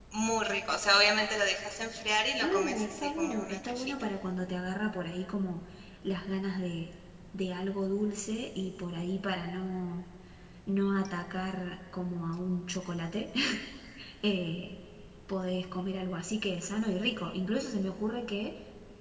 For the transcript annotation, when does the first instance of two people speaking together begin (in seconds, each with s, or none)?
2.4 s